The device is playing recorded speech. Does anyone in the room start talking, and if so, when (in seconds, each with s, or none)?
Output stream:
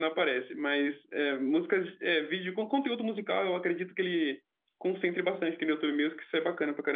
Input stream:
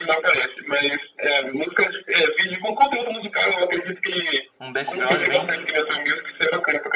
4.6 s